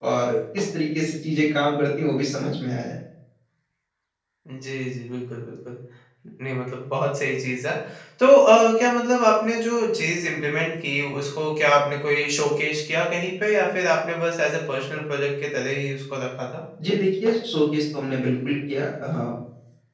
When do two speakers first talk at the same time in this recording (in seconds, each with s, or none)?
none